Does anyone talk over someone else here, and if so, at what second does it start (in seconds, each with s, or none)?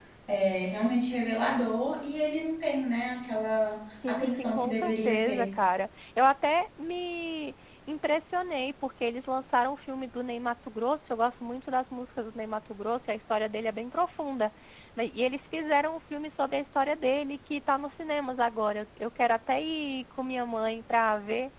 4.0 s